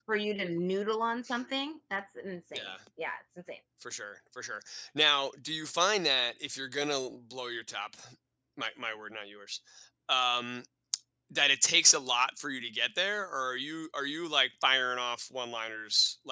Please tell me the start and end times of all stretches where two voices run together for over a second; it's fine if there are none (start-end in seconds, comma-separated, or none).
none